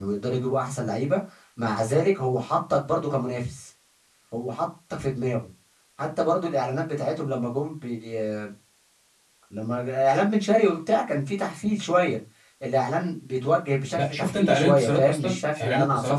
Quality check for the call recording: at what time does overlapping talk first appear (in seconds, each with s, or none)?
14.0 s